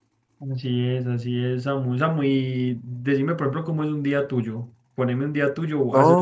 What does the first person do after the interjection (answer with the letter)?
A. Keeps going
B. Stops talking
B